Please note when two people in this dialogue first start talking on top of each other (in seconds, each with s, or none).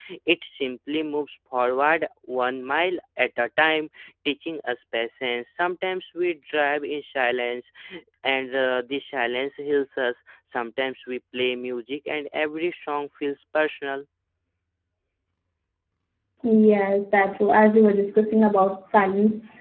none